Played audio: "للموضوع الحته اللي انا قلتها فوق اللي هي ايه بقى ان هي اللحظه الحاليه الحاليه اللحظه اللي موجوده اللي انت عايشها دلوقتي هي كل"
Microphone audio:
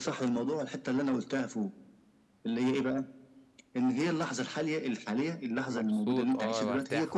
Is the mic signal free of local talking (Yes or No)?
No